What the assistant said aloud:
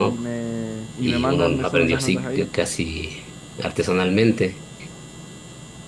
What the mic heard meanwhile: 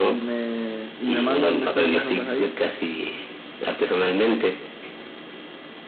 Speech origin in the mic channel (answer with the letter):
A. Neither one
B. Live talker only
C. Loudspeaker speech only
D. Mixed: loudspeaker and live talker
C